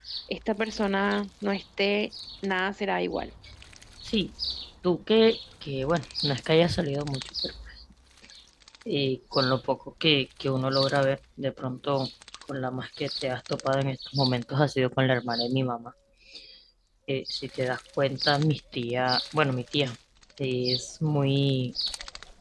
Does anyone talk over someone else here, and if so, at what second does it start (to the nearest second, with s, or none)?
none